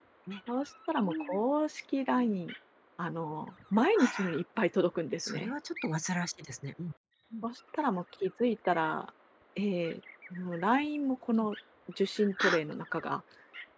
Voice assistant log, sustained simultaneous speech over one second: none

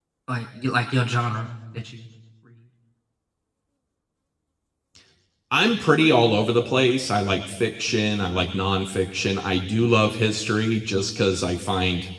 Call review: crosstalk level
none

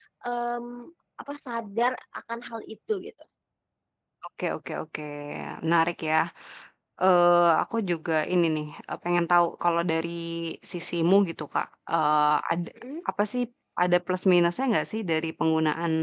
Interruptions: none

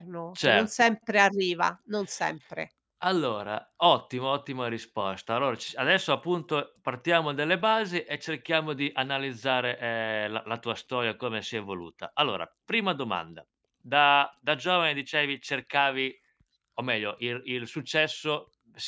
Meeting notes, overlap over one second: none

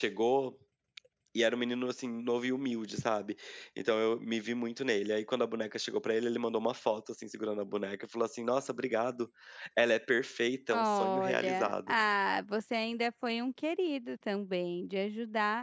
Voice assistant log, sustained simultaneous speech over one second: present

